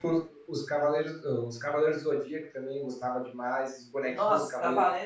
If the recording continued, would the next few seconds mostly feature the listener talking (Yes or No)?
Yes